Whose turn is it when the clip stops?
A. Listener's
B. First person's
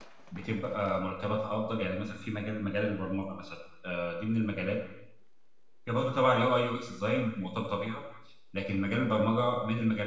B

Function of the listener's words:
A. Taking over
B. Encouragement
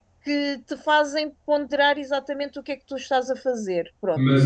A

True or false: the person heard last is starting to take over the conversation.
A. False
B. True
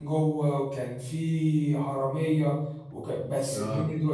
A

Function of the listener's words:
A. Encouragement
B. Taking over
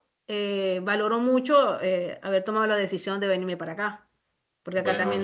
A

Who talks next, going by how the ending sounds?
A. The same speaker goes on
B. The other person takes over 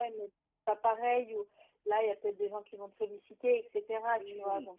B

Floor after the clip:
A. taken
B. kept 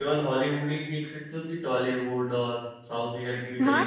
A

